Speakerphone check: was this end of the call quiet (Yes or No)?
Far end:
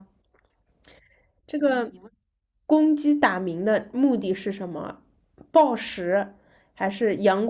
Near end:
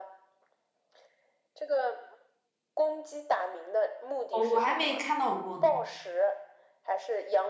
No